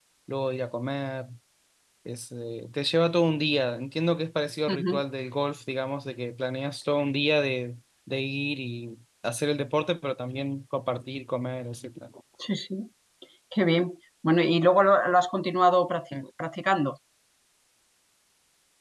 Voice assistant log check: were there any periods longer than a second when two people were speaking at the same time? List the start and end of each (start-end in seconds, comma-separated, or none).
none